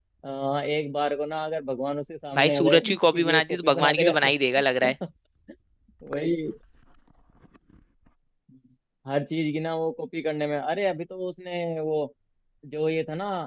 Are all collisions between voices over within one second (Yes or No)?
No